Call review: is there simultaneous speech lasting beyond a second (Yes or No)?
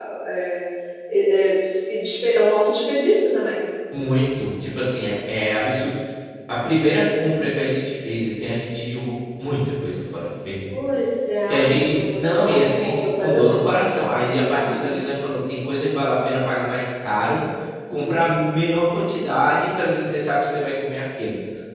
Yes